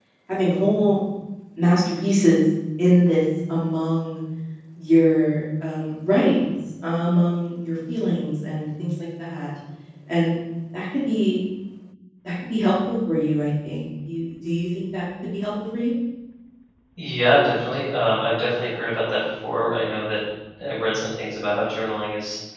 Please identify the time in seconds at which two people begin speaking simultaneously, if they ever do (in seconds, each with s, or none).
none